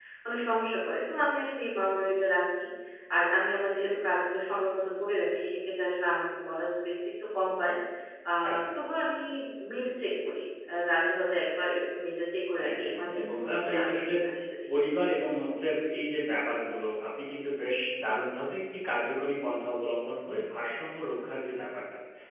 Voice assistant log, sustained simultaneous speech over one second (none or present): present